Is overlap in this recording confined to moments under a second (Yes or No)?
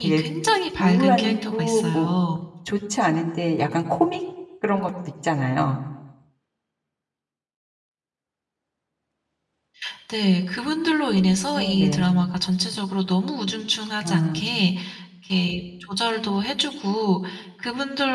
No